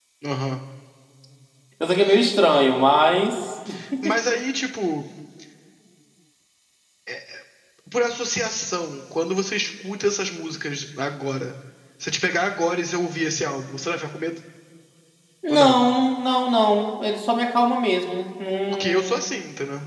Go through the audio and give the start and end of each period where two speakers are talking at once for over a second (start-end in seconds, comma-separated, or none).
none